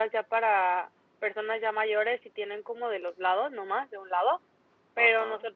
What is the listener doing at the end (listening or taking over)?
listening